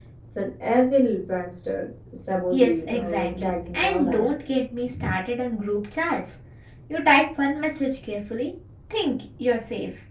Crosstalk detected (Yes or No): Yes